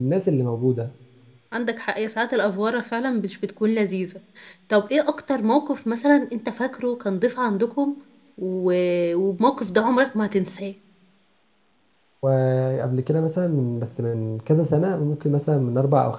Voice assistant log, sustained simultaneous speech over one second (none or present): none